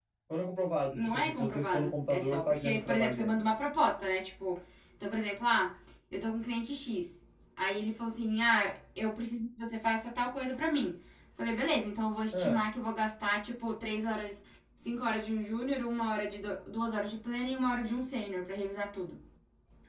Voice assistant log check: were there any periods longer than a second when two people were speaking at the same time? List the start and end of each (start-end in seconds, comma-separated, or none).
0.9-3.4